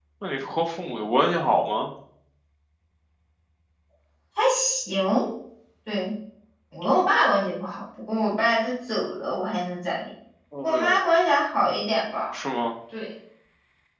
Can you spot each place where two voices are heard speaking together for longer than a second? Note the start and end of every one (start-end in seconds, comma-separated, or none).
none